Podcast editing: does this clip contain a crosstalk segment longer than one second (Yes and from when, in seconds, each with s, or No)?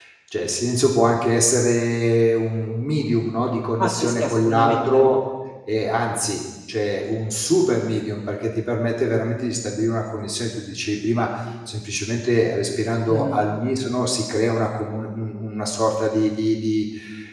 Yes, from 3.8 s